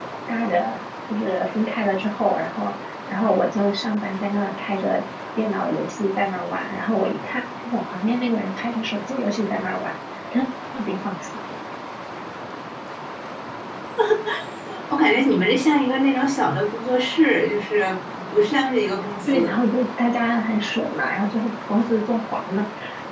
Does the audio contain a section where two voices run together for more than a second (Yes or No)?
No